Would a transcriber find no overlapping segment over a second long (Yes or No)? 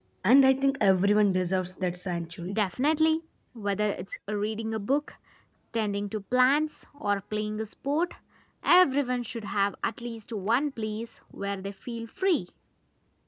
Yes